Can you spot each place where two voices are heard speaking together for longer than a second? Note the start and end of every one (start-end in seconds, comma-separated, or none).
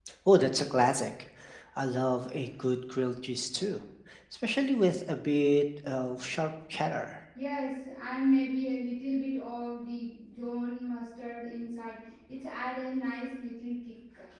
none